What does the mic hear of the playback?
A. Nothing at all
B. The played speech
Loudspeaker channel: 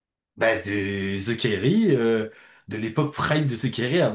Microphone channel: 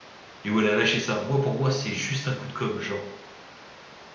A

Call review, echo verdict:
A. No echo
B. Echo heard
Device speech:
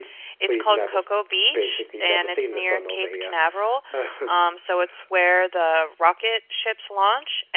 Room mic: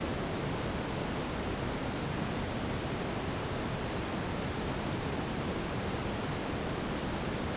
A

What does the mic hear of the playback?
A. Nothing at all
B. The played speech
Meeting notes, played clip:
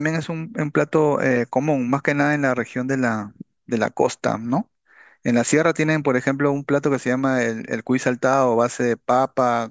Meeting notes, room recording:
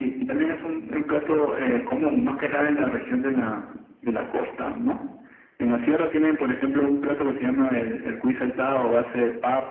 B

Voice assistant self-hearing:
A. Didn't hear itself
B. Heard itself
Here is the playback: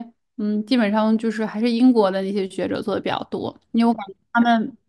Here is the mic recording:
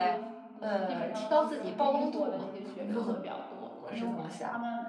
B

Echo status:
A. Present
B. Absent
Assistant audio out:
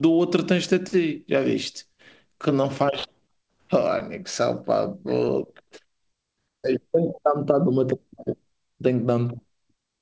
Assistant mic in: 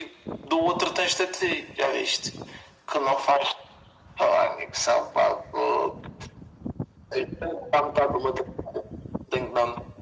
A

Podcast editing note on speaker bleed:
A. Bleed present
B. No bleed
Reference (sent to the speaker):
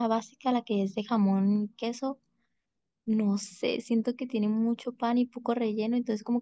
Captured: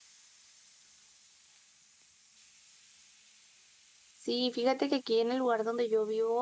B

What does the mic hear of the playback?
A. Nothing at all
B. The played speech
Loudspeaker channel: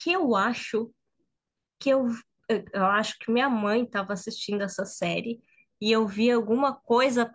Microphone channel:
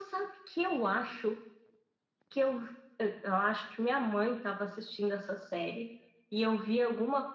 B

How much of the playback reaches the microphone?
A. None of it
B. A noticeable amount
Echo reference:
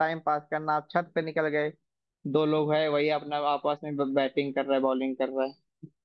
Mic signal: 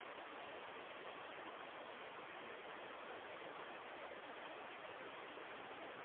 A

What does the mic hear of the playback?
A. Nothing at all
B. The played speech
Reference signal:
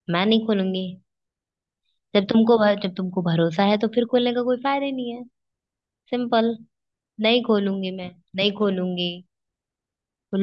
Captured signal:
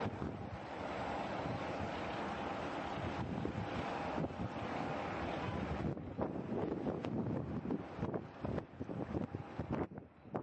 A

